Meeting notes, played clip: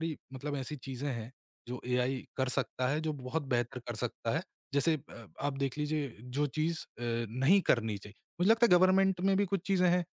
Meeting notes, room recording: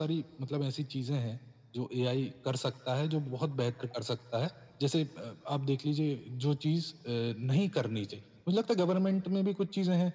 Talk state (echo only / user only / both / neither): echo only